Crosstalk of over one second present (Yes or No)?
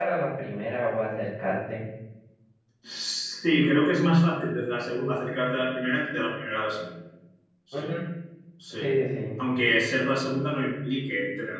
No